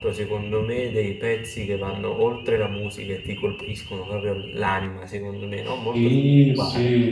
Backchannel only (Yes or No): No